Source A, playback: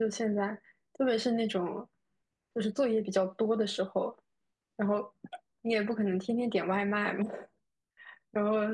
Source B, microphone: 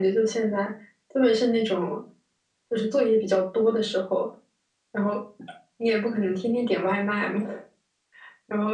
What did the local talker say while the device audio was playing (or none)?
none